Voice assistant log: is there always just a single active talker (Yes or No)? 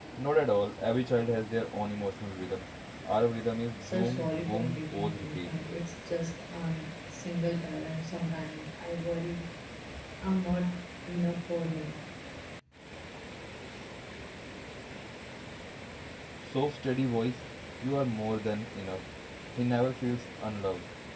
No